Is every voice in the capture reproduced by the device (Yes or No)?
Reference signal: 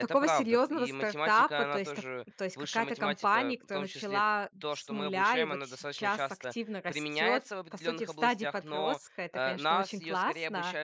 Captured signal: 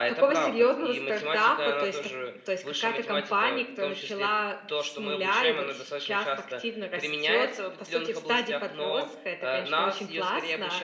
Yes